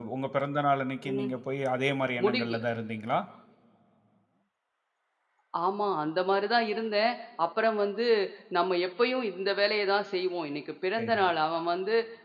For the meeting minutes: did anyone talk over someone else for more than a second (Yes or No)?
No